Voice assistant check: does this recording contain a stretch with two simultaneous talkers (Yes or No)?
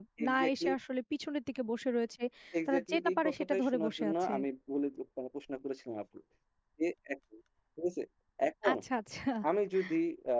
Yes